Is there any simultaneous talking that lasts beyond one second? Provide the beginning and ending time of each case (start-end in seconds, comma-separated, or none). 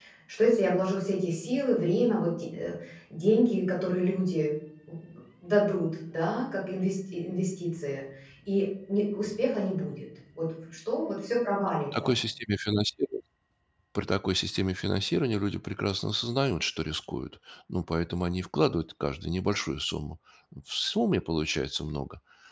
none